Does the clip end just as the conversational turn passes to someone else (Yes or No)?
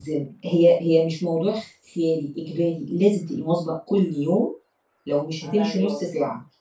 No